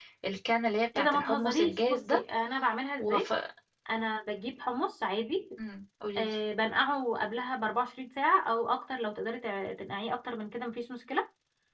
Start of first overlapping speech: 1 s

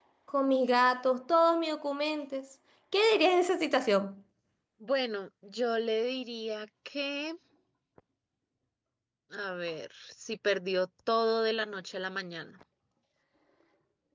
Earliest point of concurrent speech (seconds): none

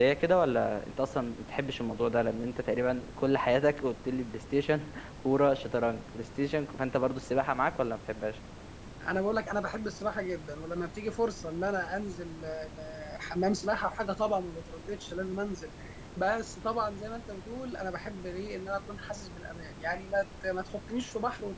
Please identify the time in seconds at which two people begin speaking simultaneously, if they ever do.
none

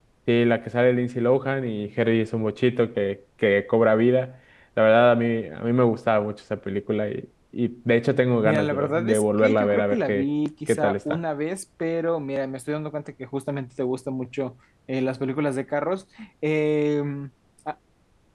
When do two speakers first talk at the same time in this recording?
8 s

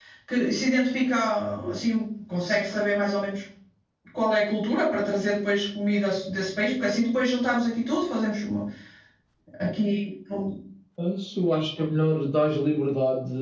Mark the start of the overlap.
none

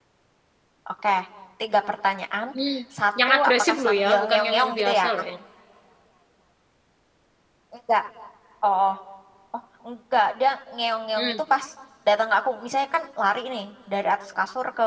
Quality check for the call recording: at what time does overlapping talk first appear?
3 s

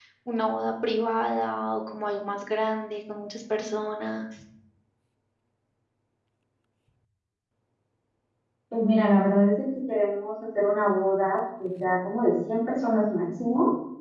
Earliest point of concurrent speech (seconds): none

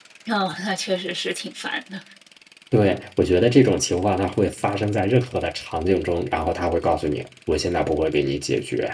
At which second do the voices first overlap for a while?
none

